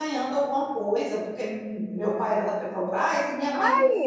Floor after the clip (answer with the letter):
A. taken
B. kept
B